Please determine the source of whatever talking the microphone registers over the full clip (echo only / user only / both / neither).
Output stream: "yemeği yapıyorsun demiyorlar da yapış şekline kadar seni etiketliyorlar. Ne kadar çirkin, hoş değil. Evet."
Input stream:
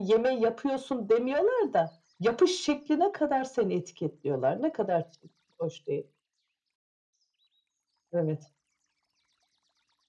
echo only